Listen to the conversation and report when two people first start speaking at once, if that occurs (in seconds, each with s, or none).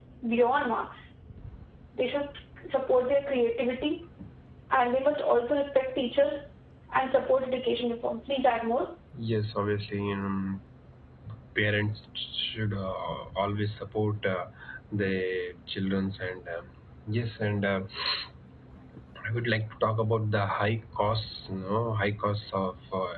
none